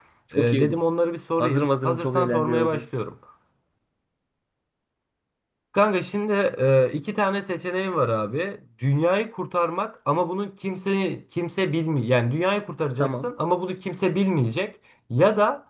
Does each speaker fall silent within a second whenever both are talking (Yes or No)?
No